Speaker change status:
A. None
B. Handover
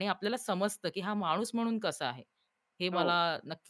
A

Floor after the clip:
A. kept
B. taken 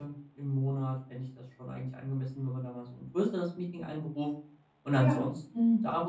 A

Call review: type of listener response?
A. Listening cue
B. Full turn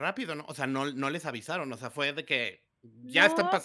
B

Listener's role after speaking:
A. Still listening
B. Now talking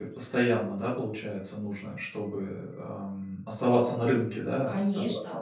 B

